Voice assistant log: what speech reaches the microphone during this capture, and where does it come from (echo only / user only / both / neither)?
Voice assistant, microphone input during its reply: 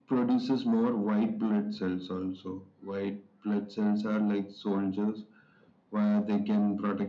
echo only